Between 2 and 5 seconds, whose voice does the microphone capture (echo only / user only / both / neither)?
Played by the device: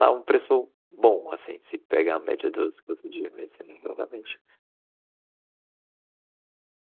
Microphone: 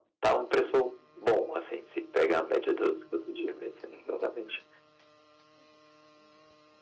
echo only